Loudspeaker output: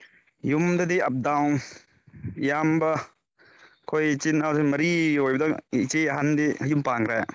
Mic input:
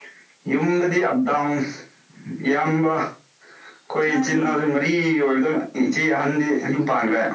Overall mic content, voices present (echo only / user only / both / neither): both